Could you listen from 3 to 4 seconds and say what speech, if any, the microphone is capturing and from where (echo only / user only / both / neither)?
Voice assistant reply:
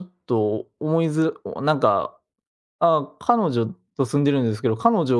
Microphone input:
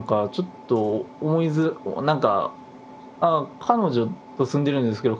echo only